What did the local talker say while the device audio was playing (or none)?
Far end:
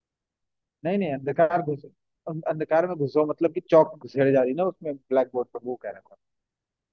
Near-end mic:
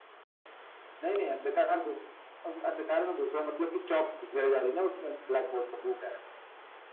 none